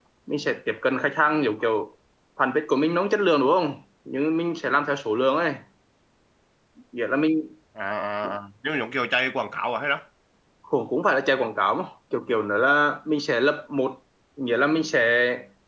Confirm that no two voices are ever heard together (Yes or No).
Yes